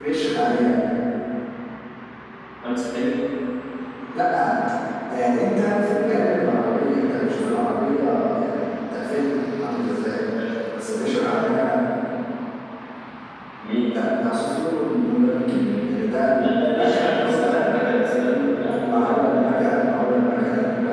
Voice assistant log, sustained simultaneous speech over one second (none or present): present